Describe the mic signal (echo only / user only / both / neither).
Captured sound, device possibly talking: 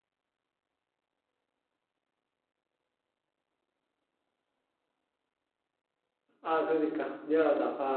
user only